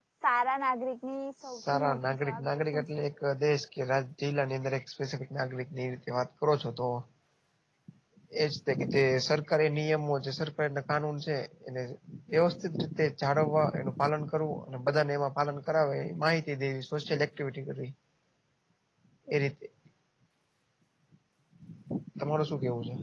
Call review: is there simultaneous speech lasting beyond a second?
Yes, from 1.5 s

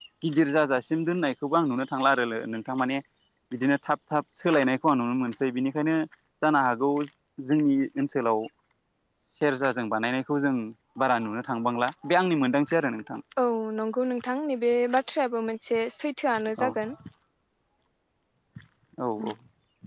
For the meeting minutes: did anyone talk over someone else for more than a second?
No

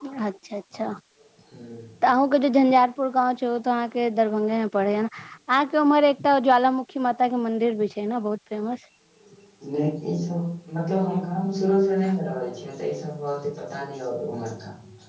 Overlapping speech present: No

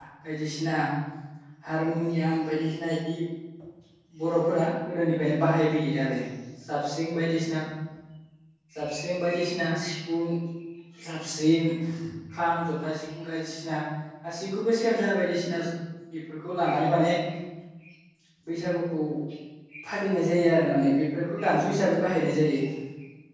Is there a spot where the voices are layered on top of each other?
No

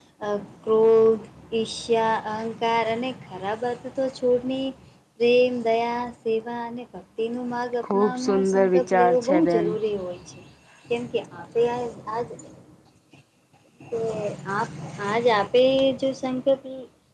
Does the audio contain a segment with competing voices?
Yes, from 7.8 s

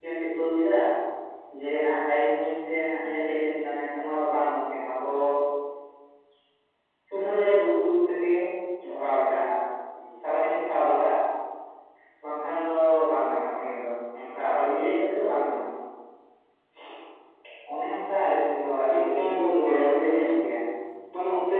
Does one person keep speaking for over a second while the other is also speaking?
Yes, from 18.9 s

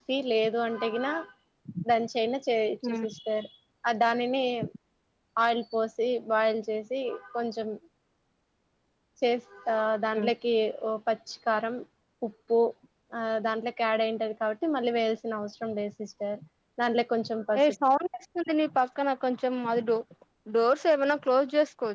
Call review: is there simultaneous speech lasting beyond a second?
No

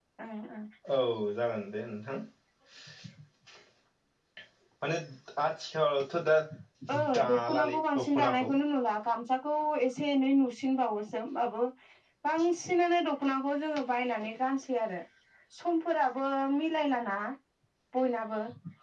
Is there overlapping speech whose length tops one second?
Yes, from 7.2 s

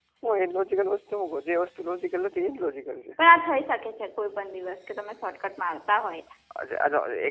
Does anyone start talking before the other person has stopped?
No

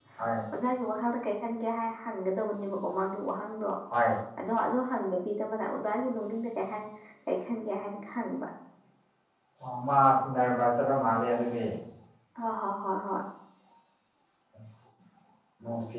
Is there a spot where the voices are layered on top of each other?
No

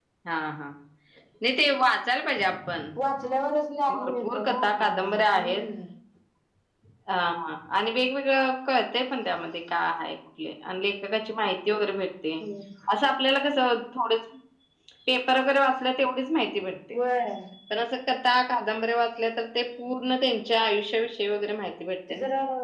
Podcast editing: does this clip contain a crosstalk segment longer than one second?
Yes, from 3.9 s

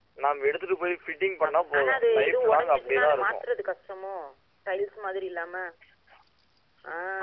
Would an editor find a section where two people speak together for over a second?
Yes, from 1.4 s

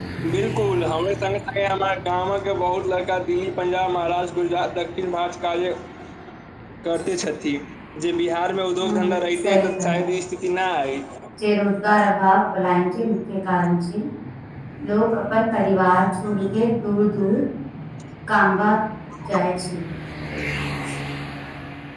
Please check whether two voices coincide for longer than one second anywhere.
Yes, from 8.8 s

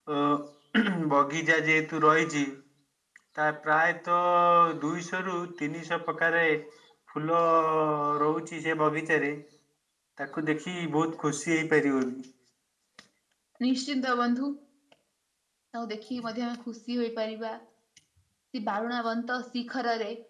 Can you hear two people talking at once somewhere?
No

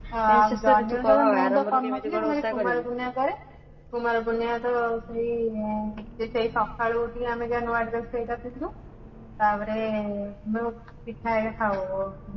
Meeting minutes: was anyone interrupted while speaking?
Yes, from 0.5 s

